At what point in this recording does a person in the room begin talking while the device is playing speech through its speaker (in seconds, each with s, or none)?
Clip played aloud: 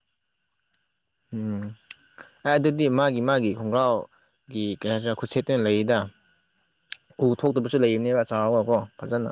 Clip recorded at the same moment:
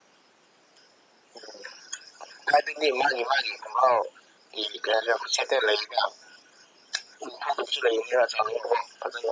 none